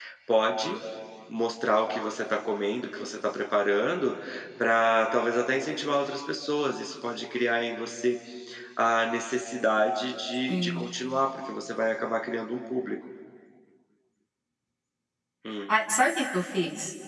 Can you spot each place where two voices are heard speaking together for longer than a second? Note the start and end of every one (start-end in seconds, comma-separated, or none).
none